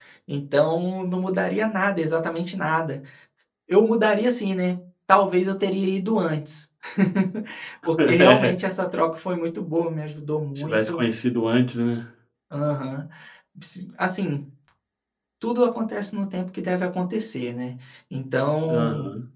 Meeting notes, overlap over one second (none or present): none